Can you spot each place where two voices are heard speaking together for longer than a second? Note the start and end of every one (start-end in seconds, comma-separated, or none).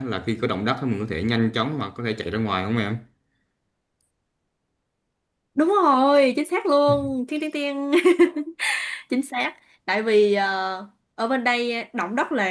none